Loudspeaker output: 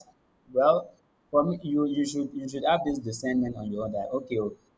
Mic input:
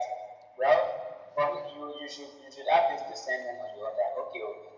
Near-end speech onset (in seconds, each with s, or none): none